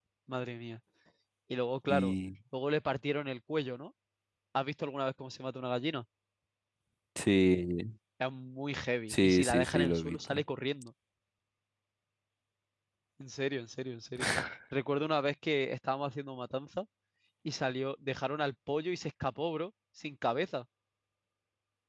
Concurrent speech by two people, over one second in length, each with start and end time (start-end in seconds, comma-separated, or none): 9.1-10.3